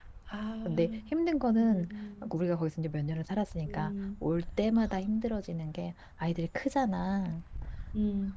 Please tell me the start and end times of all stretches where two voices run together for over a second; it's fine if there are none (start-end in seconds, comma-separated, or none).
none